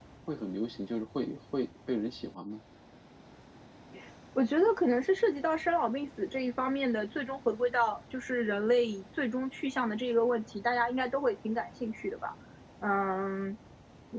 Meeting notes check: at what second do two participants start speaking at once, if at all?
none

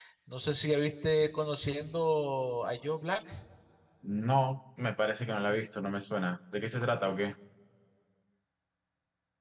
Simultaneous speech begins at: none

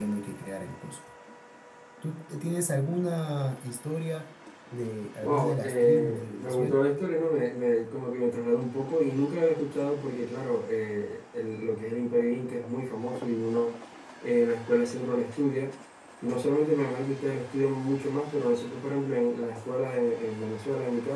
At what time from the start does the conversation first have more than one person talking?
5.2 s

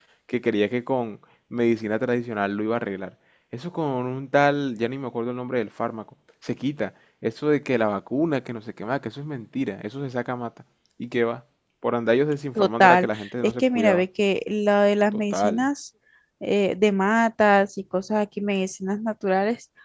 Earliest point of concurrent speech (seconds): 12.6 s

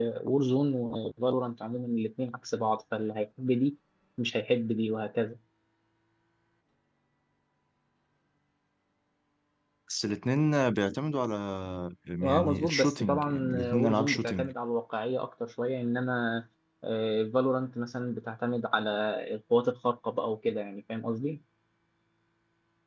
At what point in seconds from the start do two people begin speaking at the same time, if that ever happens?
12.3 s

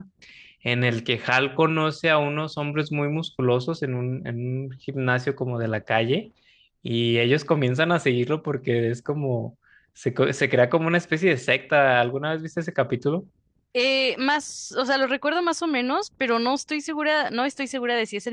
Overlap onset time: none

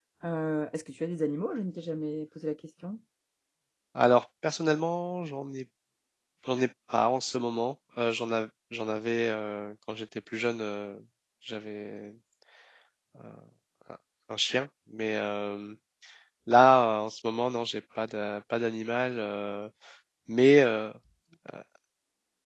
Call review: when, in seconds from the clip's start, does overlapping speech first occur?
none

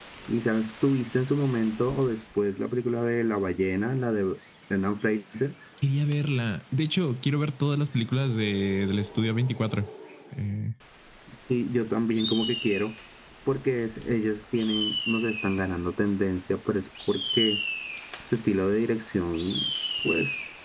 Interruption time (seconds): none

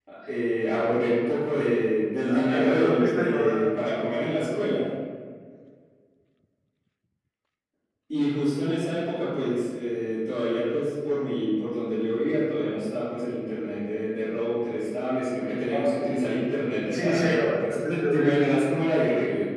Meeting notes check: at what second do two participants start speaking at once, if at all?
2.2 s

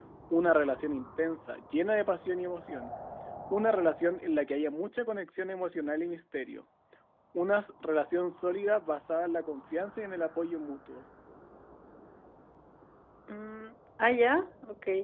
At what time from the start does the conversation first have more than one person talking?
none

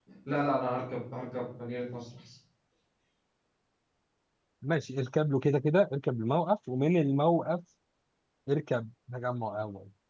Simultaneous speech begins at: none

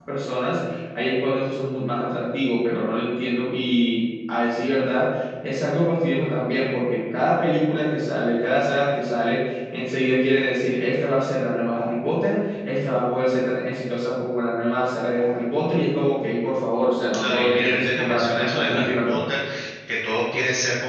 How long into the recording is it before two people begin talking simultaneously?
17.1 s

